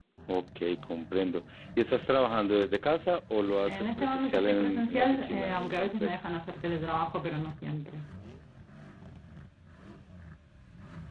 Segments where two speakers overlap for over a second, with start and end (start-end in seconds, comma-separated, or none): 3.7-6.2